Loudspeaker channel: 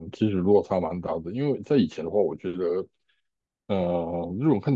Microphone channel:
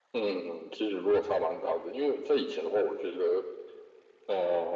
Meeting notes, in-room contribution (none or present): none